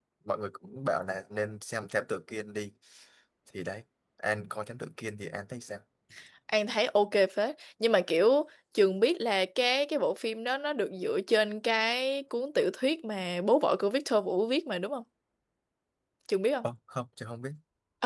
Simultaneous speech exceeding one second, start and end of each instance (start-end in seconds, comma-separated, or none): none